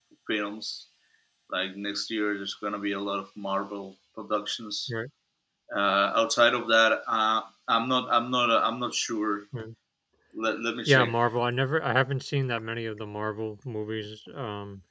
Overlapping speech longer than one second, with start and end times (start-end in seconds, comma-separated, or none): none